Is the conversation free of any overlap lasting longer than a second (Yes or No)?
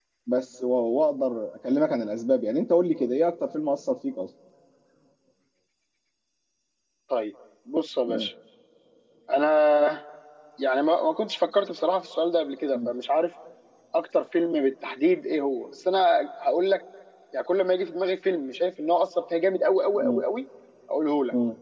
Yes